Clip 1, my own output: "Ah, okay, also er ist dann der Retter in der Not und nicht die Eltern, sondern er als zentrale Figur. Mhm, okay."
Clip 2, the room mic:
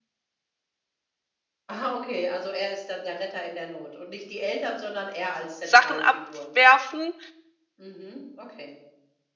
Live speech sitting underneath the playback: No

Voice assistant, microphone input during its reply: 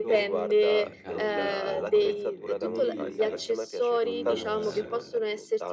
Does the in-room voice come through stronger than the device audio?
No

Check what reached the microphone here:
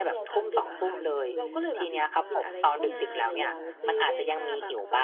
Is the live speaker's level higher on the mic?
No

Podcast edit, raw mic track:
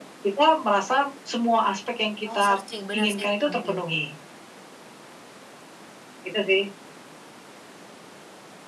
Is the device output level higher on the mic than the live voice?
Yes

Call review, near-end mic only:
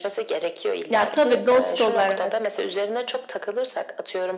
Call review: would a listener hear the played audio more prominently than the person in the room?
No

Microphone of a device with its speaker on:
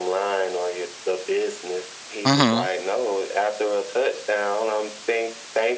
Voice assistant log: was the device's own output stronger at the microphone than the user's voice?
No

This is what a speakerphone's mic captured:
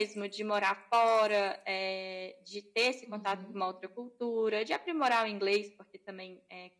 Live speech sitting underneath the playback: Yes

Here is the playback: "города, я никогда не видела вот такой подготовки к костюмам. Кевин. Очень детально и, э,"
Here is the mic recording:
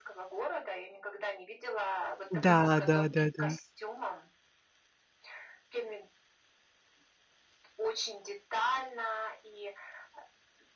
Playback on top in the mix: No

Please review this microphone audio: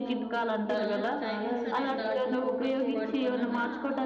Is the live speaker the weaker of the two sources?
Yes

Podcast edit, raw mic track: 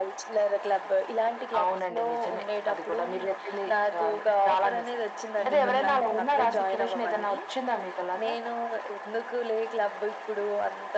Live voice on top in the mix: No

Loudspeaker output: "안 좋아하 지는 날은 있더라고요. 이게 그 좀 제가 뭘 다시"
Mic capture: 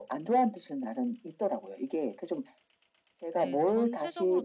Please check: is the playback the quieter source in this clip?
No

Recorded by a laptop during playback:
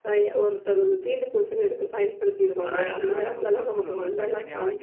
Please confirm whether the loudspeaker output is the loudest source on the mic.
Yes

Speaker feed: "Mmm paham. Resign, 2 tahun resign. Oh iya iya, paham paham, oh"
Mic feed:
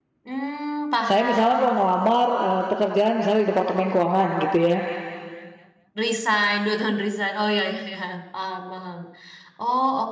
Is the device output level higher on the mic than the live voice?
No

